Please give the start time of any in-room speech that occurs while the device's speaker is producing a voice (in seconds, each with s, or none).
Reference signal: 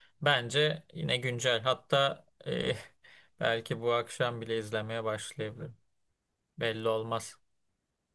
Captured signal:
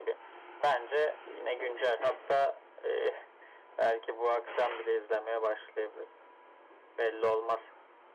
none